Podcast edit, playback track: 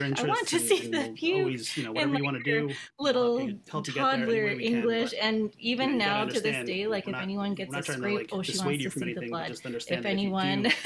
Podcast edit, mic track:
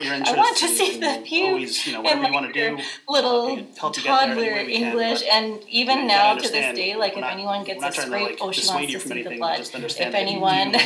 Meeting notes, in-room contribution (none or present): present